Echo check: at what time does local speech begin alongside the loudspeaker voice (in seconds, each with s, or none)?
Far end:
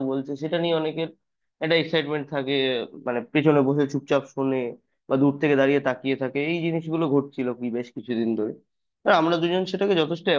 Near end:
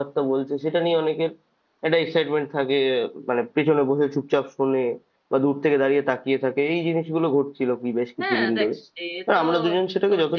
8.2 s